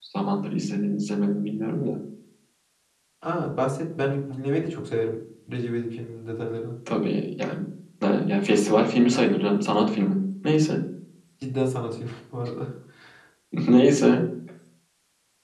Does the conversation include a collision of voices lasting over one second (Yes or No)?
No